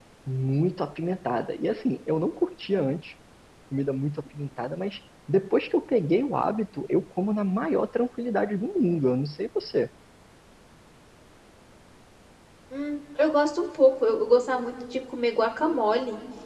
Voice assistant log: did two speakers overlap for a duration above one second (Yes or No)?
No